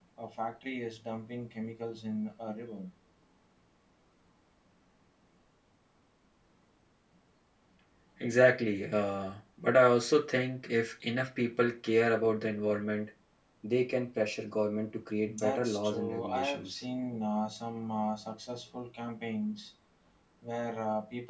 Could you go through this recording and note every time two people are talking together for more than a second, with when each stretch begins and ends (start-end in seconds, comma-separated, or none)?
15.3-16.8